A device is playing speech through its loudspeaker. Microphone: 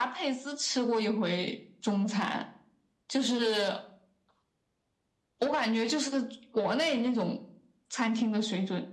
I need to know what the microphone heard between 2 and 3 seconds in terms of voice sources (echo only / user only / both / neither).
echo only